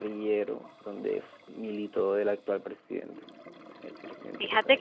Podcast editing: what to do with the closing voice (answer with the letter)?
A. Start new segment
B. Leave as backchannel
A